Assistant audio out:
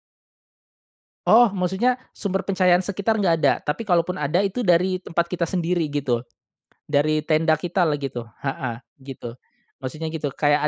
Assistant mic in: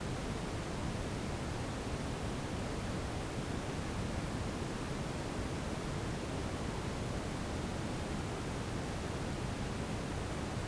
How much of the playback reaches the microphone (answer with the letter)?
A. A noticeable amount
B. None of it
B